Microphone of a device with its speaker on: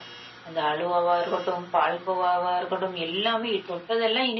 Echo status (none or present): present